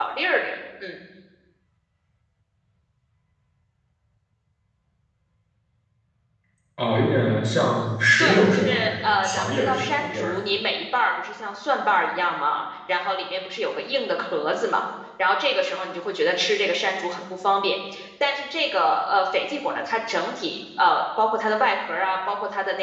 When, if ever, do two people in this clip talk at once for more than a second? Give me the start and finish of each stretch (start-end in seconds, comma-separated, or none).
8.2-10.4